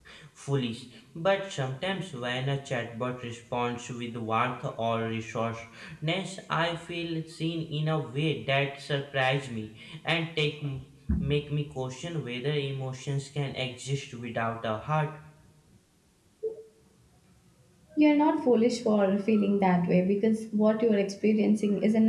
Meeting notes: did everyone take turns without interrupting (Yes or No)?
Yes